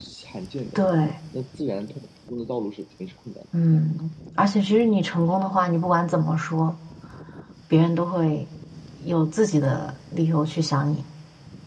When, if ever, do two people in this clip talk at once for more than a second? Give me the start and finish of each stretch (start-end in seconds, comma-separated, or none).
none